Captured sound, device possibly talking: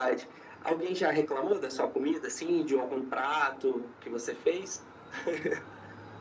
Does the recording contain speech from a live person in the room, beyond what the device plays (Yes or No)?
No